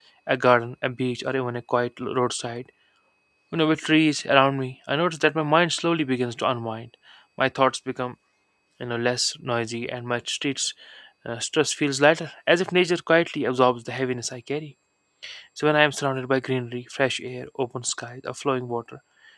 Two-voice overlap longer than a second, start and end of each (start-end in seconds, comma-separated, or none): none